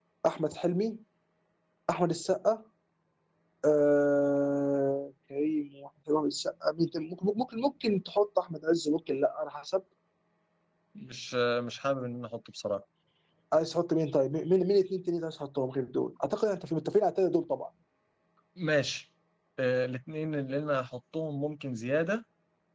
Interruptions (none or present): none